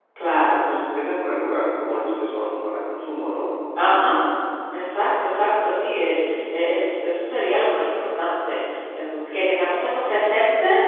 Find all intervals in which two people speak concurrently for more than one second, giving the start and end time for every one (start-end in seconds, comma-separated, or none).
none